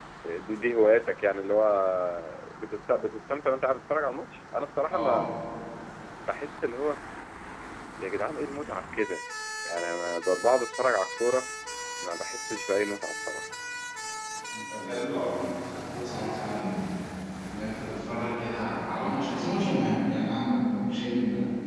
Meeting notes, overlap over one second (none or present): none